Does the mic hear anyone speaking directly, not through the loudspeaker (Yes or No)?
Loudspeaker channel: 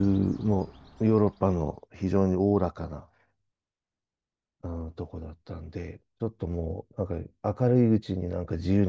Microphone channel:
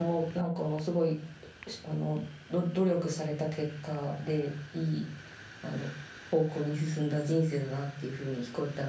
Yes